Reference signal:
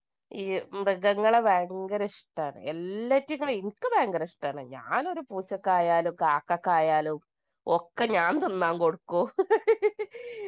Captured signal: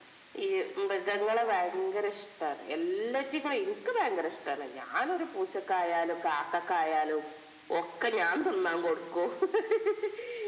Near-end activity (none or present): present